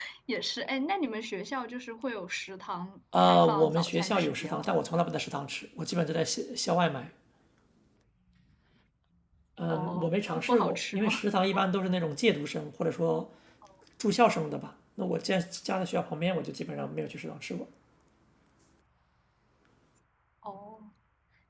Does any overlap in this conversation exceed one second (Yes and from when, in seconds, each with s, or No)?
Yes, from 3.2 s